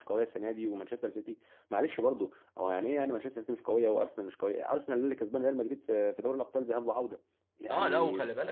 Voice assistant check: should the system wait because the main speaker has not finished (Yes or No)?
No